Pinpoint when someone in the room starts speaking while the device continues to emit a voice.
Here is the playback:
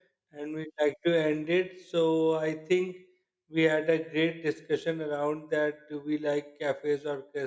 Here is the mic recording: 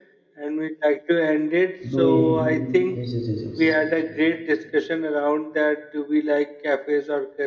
2 s

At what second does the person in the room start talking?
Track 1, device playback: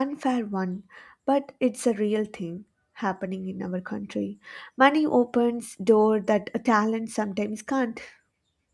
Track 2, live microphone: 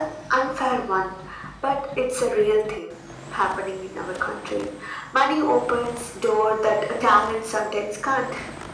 none

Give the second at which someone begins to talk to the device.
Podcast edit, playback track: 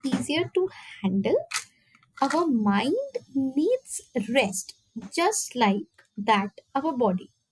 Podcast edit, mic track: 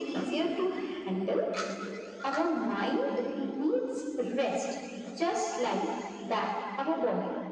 none

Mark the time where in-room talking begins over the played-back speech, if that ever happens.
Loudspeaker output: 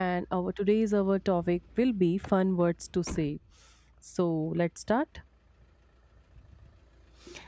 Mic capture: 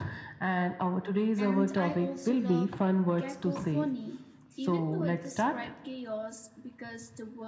1 s

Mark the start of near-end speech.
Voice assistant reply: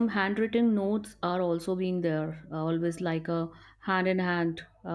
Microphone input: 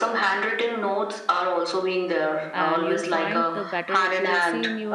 3 s

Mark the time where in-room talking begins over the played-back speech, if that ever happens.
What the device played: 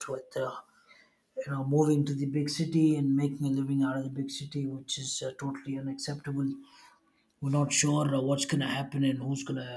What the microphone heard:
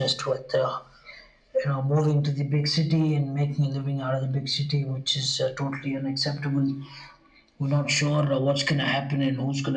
none

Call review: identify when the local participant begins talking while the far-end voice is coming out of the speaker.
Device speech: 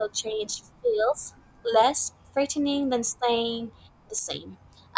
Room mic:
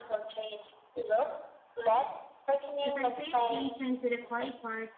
3 s

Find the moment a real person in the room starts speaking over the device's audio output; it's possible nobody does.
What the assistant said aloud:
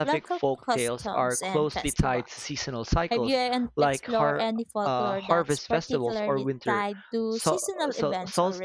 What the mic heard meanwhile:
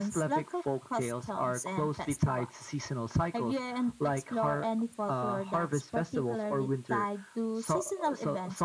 none

